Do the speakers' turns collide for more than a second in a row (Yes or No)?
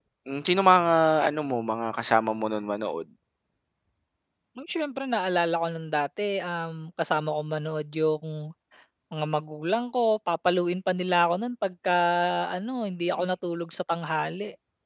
No